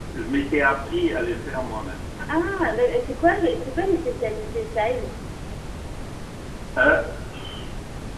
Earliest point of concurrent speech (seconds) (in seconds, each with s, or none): none